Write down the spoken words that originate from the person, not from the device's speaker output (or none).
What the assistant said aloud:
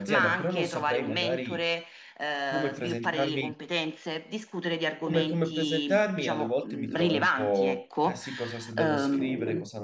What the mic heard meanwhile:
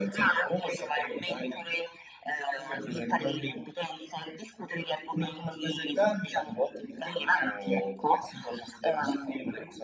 none